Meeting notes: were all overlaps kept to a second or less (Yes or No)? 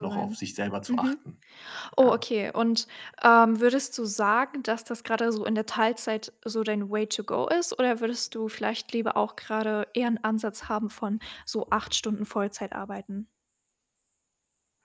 Yes